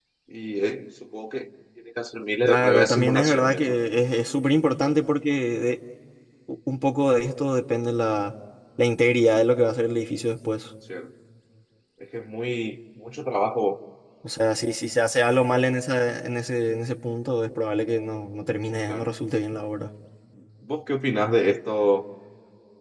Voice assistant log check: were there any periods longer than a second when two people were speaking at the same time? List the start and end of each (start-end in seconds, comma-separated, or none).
2.5-3.8